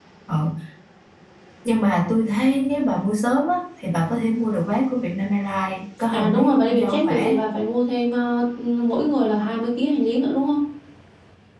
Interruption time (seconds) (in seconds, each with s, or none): 6.1 s